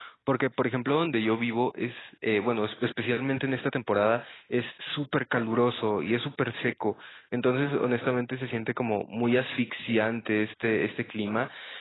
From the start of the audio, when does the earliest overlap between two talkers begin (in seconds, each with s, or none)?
none